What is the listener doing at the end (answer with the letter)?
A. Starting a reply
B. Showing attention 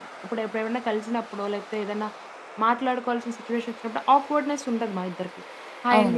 B